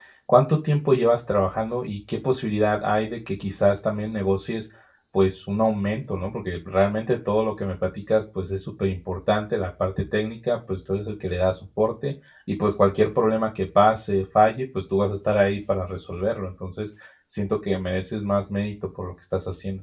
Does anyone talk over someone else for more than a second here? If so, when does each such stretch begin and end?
none

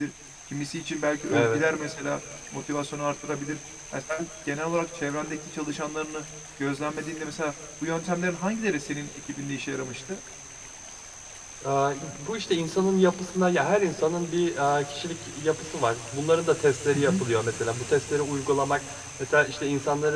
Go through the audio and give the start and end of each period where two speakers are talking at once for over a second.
none

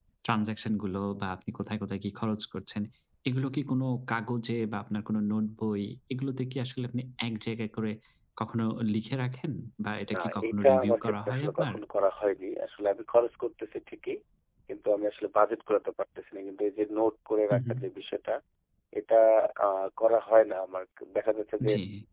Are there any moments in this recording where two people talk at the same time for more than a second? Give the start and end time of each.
10.1-11.7

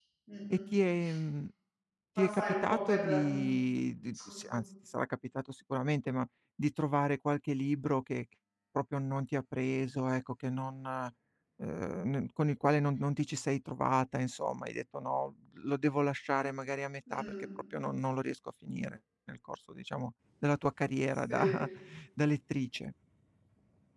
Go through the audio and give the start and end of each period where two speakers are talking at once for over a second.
2.2-3.4

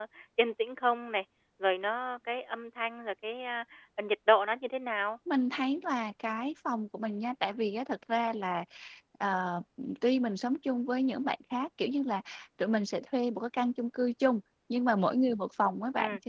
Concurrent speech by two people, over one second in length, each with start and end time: none

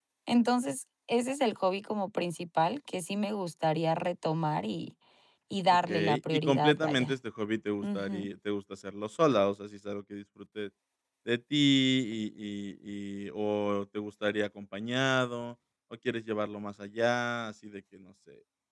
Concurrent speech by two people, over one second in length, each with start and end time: 5.7-7.1

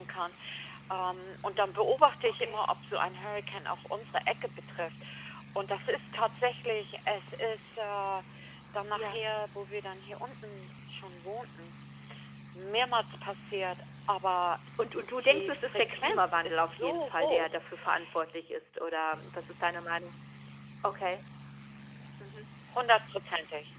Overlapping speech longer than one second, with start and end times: 15.3-17.6

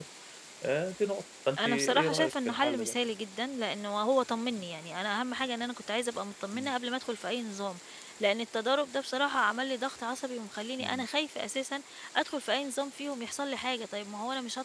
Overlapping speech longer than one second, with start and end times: 1.6-3.0

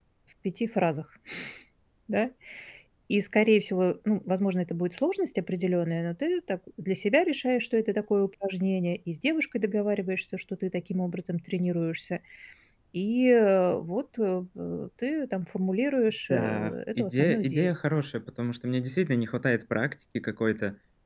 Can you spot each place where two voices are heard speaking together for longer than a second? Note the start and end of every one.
16.3-17.7

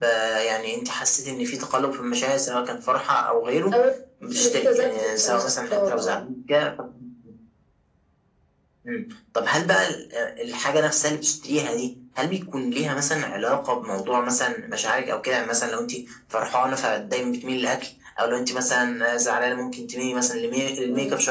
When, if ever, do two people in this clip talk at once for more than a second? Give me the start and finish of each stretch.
4.4-6.2

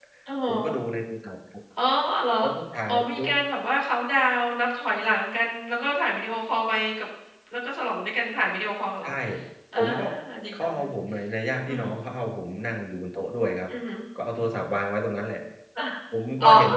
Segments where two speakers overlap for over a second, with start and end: none

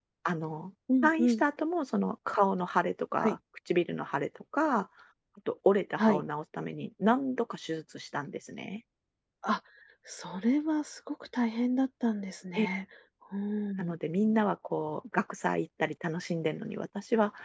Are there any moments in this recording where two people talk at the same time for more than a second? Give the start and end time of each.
none

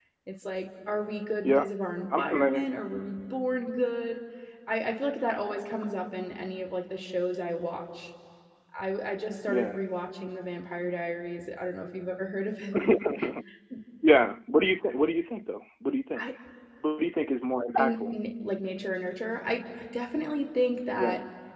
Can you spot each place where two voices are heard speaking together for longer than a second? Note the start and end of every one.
none

